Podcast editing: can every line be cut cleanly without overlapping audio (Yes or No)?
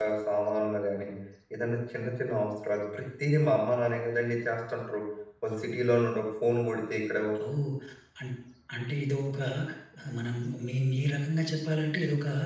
Yes